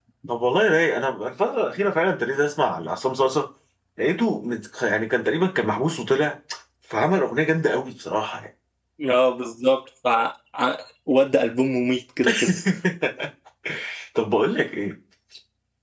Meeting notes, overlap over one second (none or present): none